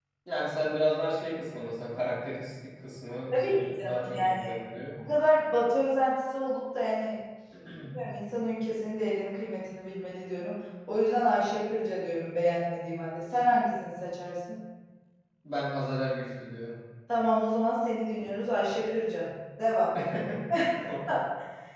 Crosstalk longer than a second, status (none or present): present